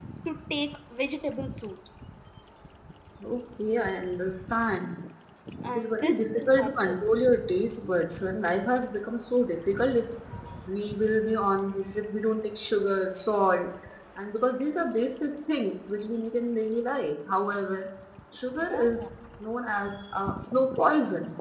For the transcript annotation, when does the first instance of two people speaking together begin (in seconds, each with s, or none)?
5.7 s